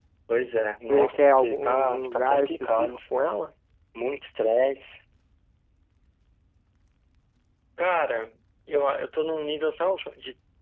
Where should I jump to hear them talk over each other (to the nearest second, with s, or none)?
1 s